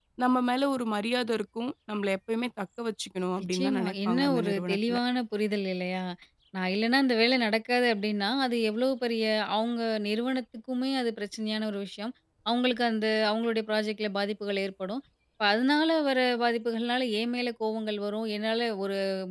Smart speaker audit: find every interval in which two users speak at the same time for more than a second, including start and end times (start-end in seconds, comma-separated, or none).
3.4-5.0